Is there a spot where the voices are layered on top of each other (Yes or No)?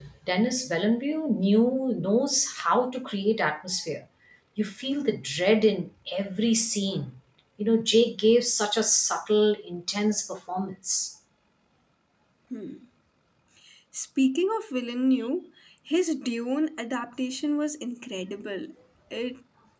No